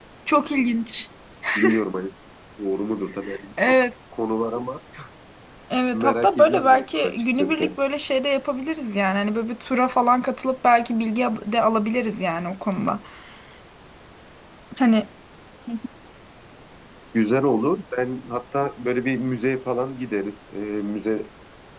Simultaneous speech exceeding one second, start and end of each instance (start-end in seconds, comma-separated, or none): 5.9-7.8